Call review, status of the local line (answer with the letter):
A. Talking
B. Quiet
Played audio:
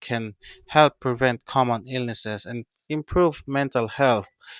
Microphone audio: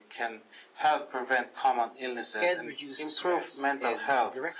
A